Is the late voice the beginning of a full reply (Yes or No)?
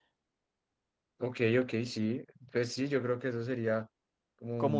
Yes